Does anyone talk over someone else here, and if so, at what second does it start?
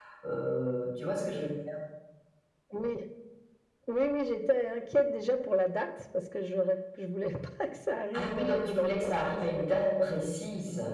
8 s

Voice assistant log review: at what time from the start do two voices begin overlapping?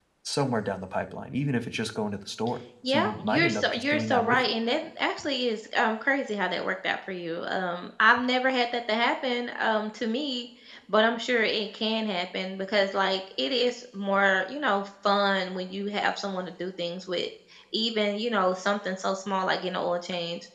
3 s

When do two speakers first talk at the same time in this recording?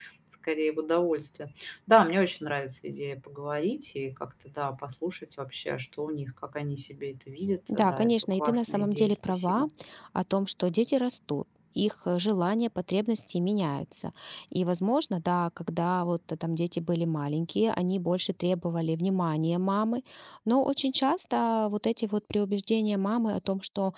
8 s

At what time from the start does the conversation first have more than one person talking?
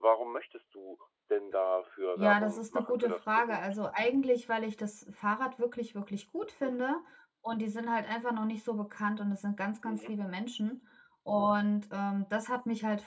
2 s

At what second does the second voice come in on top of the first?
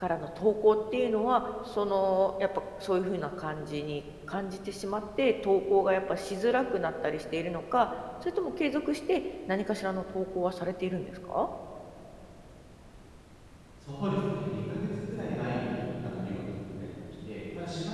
none

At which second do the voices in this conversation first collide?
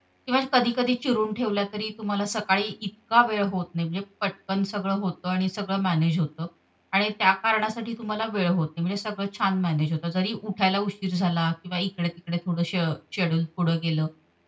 none

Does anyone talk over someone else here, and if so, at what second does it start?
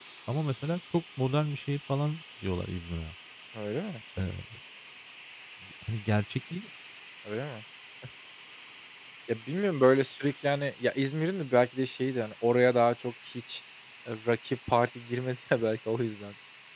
none

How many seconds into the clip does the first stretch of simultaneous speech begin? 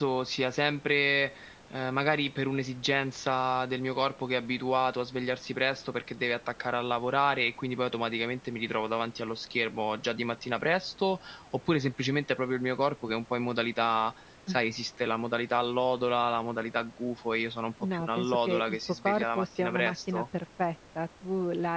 18 s

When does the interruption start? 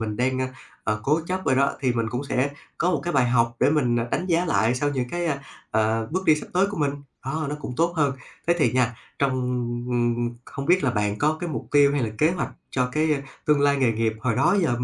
none

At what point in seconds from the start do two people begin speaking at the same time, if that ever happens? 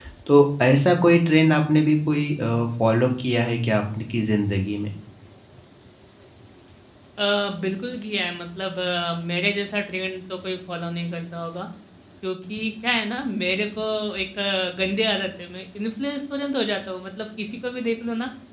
none

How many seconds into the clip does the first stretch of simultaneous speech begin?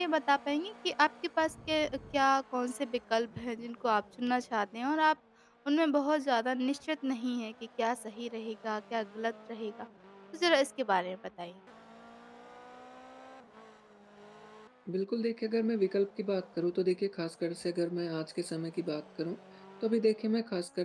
none

